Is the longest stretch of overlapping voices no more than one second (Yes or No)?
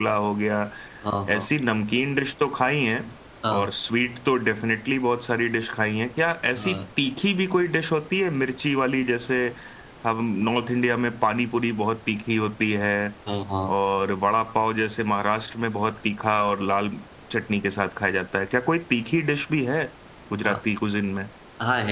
Yes